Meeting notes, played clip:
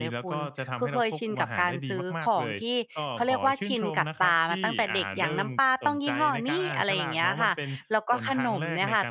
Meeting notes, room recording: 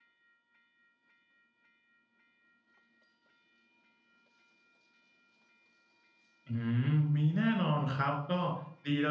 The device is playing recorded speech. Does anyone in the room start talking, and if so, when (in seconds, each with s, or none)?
6.5 s